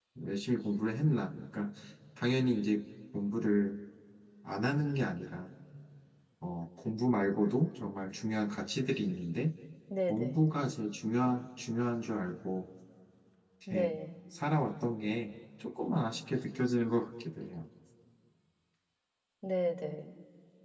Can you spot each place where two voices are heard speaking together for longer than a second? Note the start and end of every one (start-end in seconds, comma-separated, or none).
none